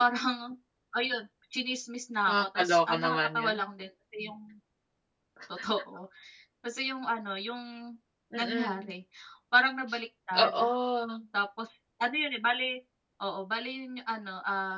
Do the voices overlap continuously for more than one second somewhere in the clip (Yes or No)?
Yes